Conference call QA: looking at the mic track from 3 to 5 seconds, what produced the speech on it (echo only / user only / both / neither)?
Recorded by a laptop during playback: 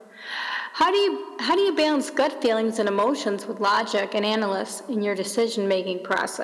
echo only